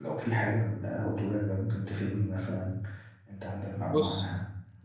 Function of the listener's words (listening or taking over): taking over